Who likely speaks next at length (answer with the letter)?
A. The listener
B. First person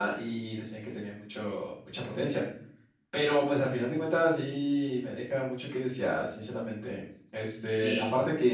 B